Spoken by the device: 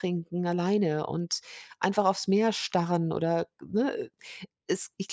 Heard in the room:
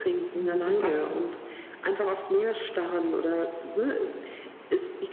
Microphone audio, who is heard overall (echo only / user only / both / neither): both